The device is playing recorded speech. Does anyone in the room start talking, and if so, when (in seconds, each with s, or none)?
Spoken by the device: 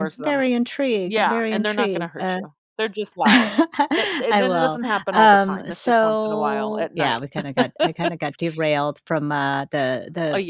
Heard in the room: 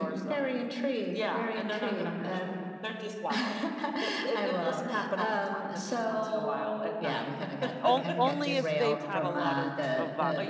7.8 s